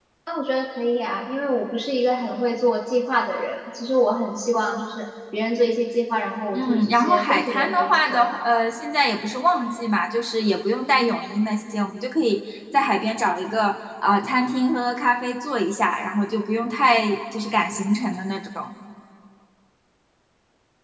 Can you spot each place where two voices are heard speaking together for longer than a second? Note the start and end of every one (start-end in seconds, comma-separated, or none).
6.5-8.6